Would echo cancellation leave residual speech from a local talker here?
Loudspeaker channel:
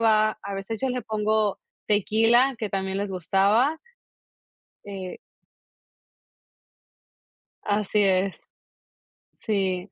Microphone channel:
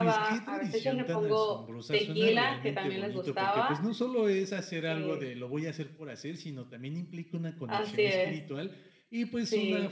Yes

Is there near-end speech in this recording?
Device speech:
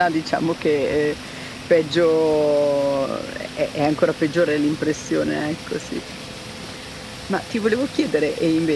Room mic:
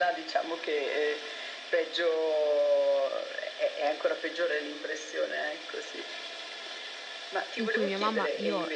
Yes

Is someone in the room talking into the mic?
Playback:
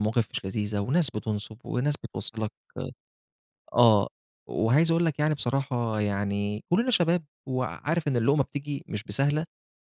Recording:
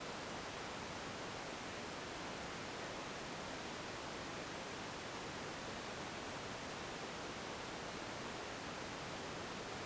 No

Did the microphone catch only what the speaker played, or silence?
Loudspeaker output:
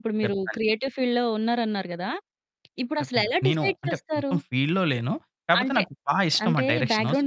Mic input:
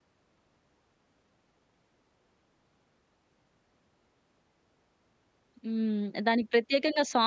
No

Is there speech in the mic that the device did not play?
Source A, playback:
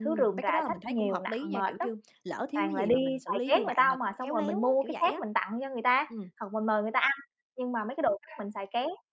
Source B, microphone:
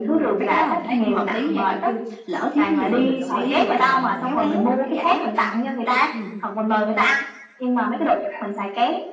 Yes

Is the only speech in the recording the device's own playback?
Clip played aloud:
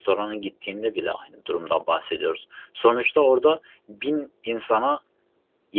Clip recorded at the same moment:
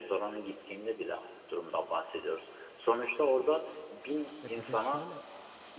No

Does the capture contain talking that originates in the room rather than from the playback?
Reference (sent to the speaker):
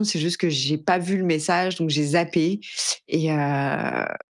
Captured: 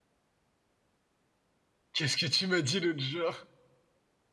Yes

